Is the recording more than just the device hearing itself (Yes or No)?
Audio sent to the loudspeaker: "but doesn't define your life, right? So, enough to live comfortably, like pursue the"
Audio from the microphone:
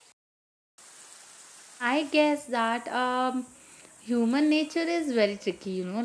Yes